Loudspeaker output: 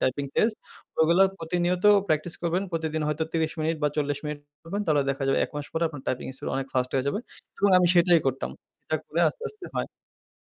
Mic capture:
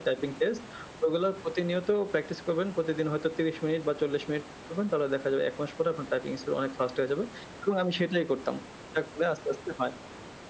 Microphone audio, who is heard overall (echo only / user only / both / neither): echo only